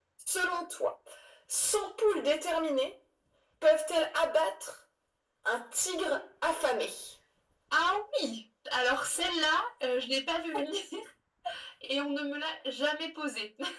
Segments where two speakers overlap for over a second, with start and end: none

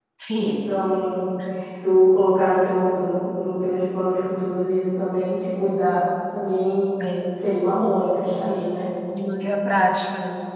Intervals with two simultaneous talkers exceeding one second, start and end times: none

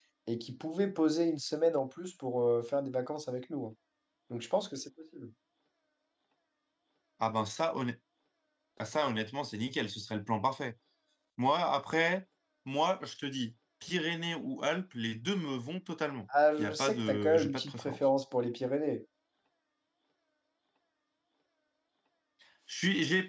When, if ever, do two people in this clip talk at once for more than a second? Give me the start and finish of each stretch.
16.6-18.0

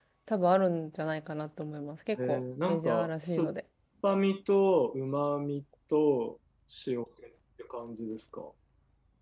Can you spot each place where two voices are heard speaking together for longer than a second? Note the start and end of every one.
2.1-3.5

